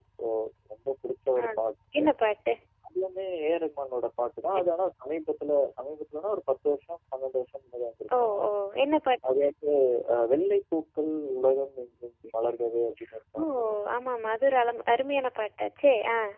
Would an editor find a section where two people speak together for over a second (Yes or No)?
No